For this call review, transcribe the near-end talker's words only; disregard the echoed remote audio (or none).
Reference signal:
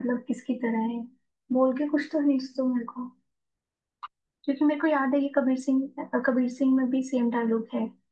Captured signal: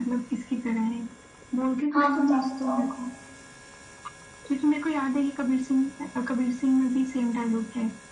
हाँ बताओ बताओ